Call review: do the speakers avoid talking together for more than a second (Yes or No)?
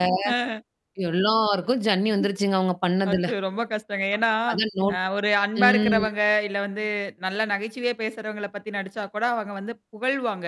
Yes